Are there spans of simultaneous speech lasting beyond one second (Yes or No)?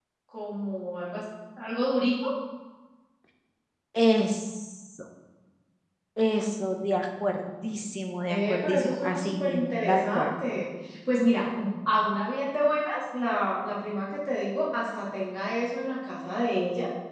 Yes